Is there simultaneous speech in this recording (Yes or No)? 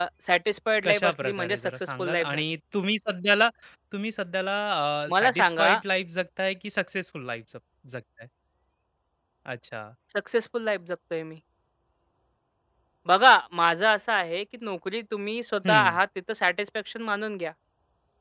Yes